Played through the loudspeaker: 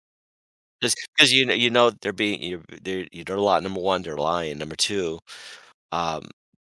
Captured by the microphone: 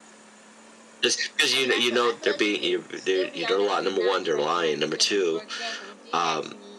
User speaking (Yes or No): Yes